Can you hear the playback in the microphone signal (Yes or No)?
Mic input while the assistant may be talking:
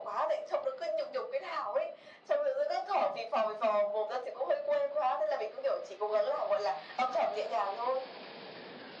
Yes